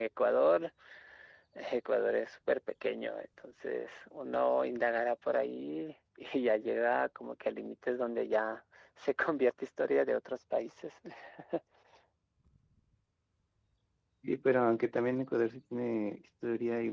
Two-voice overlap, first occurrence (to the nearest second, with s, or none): none